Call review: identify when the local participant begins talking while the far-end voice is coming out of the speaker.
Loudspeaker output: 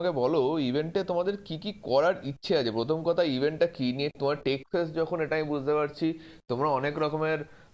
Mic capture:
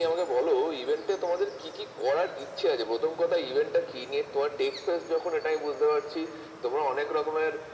none

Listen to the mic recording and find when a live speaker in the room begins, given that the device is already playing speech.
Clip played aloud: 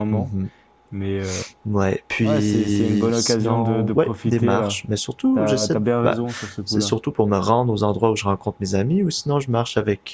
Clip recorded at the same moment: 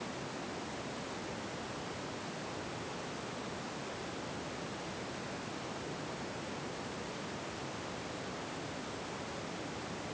none

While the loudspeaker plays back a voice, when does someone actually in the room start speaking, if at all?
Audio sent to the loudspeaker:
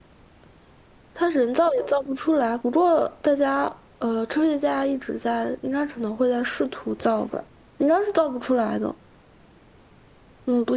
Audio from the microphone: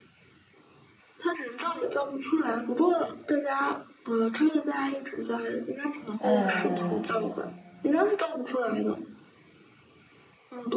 6.2 s

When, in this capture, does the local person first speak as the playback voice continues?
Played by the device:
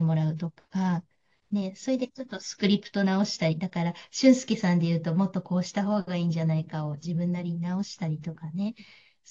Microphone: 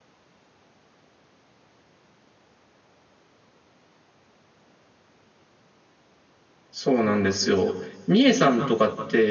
6.7 s

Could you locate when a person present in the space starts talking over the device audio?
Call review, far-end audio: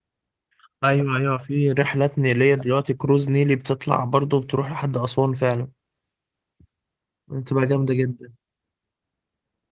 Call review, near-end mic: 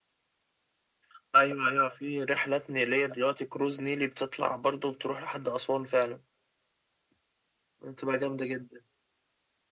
none

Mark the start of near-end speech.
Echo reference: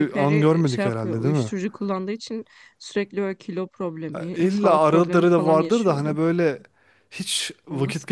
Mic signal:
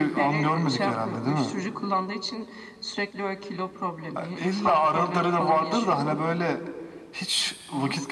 none

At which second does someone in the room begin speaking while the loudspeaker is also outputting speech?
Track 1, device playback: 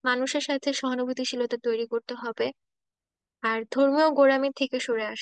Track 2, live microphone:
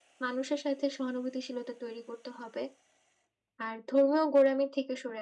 none

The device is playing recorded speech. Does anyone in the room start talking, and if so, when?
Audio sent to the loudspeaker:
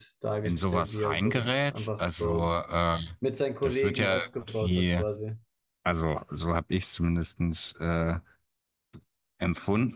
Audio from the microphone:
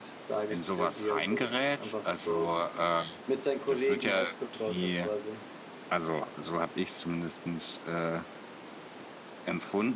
none

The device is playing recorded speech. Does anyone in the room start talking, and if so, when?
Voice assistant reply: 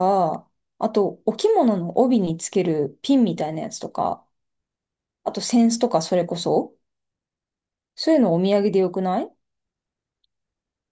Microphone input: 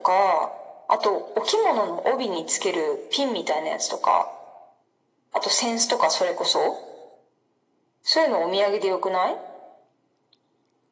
none

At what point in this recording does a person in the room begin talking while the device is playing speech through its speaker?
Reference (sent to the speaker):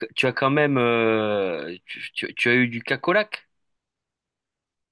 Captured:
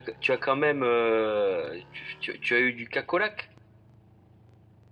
none

